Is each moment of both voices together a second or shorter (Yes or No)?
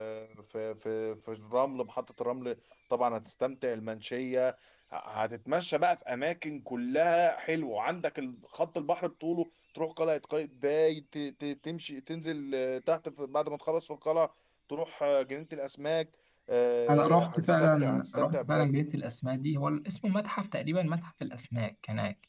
No